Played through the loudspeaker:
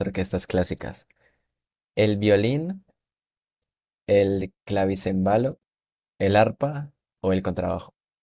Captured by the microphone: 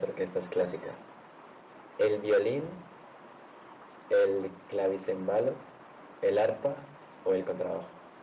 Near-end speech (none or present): none